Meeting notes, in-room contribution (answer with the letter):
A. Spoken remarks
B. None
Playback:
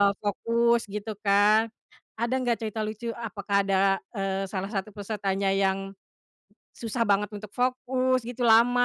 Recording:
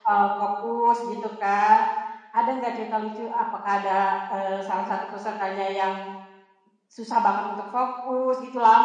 B